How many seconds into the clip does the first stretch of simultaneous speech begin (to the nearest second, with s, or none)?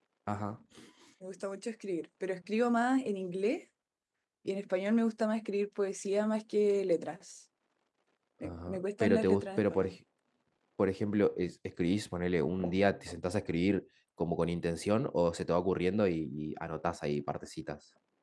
8 s